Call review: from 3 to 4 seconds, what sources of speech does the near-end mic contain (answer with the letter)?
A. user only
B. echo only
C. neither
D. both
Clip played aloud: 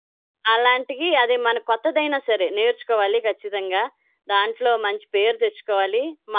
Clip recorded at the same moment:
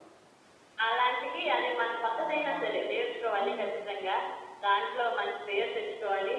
D